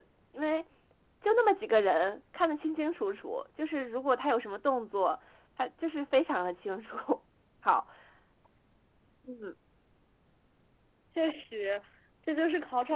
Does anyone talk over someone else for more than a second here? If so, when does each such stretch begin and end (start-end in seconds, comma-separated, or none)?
none